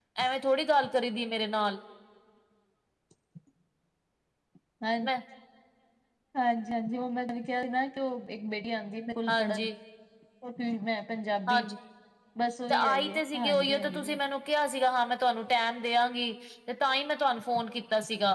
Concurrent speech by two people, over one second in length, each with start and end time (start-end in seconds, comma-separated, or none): 12.7-14.2